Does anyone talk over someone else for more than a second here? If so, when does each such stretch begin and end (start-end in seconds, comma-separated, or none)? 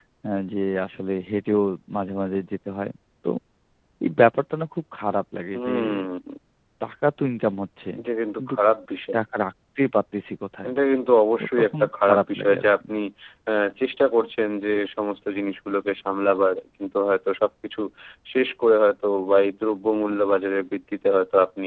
11.4-12.7